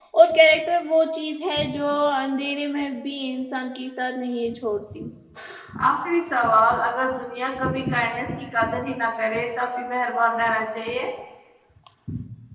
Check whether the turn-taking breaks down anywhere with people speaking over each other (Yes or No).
No